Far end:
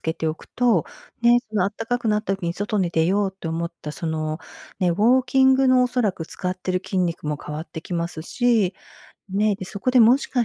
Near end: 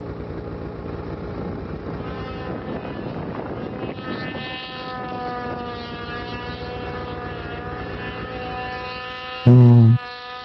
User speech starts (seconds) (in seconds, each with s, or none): 9.4 s